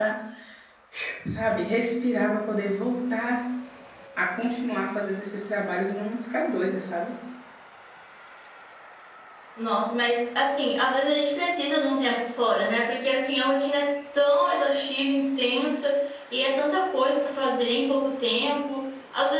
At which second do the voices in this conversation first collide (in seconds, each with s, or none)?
none